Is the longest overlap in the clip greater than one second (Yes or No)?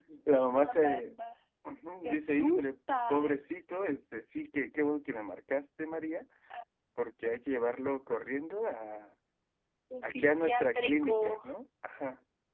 Yes